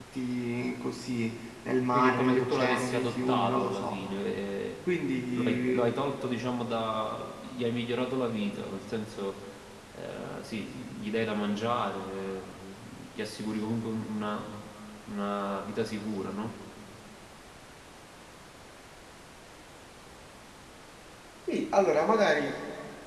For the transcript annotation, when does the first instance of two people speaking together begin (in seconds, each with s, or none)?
1.9 s